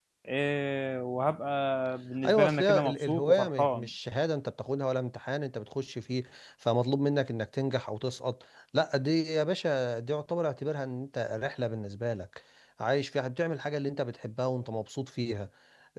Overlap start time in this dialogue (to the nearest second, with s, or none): 2 s